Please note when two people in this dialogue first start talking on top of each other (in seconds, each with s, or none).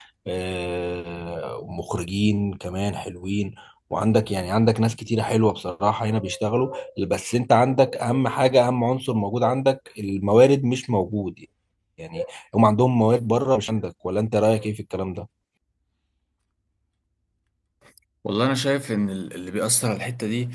none